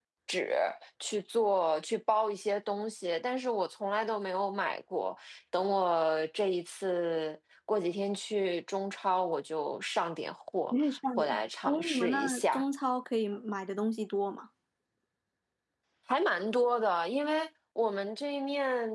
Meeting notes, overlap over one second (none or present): present